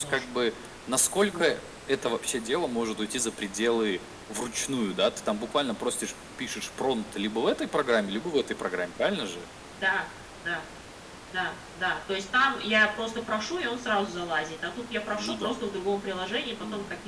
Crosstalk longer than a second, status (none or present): none